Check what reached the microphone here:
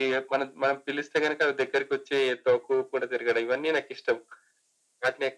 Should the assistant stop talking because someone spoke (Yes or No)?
No